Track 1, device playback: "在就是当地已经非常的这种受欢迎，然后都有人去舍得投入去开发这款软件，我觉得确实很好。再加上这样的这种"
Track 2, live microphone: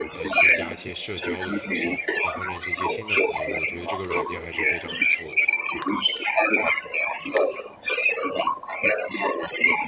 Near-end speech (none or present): present